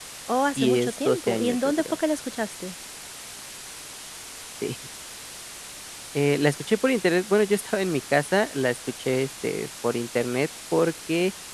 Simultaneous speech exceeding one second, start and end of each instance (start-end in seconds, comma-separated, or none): 0.6-2.0